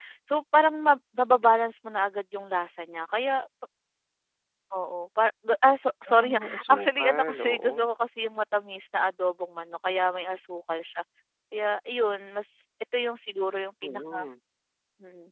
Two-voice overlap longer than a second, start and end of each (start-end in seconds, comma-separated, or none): 6.2-7.7